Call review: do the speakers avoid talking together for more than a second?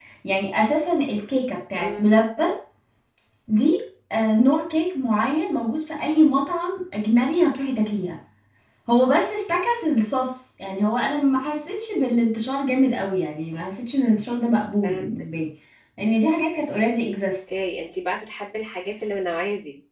Yes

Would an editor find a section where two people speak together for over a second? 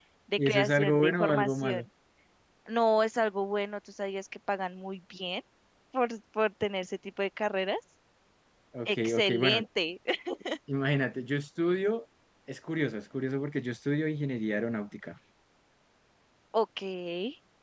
Yes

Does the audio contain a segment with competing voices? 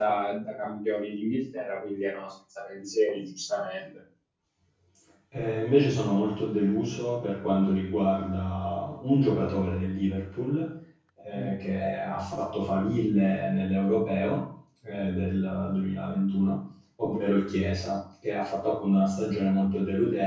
No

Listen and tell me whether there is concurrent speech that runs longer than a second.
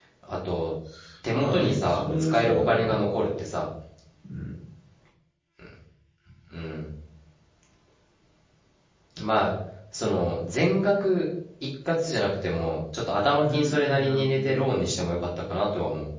Yes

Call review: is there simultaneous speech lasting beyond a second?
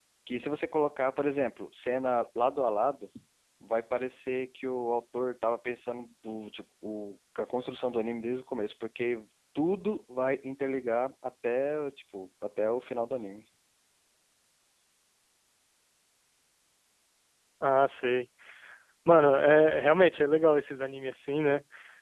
No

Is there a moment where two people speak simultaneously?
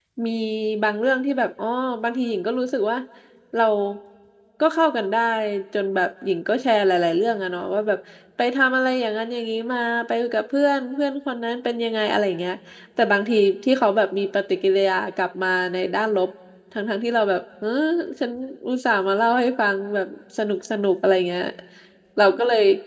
No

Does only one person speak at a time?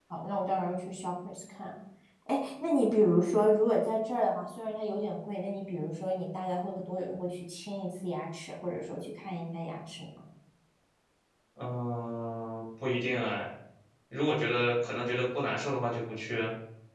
Yes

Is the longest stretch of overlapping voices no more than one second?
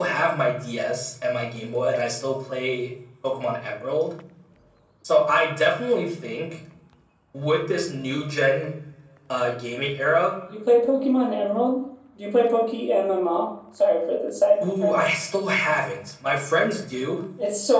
Yes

